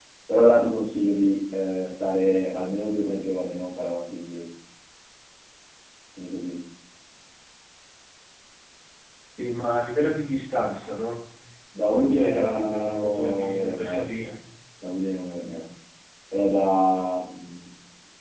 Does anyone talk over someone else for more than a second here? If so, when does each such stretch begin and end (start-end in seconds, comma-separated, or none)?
11.9-14.0